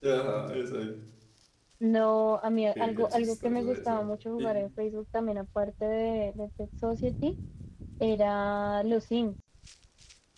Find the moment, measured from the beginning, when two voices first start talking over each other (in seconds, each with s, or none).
2.8 s